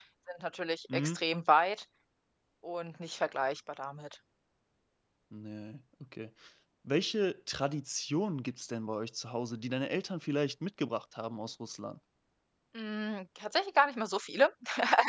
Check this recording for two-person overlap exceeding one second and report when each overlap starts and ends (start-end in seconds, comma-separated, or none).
none